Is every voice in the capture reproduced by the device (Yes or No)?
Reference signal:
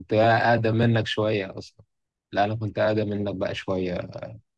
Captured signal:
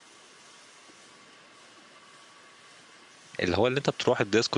No